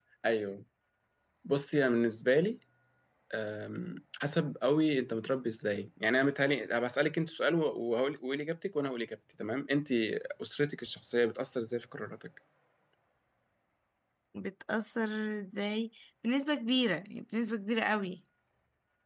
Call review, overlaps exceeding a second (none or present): none